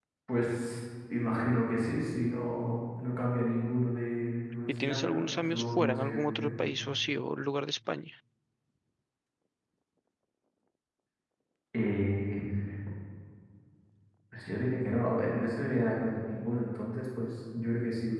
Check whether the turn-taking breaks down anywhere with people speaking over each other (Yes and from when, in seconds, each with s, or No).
Yes, from 4.7 s